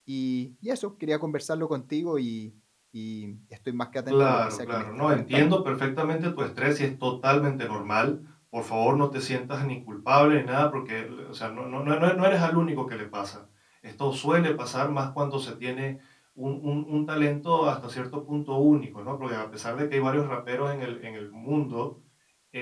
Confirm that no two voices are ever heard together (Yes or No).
No